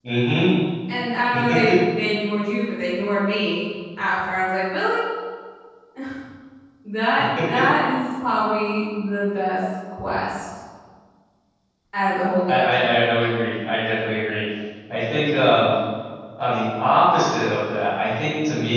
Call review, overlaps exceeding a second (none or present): none